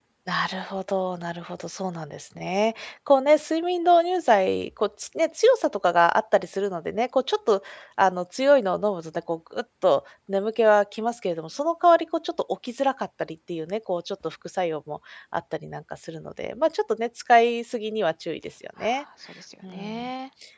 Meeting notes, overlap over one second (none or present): none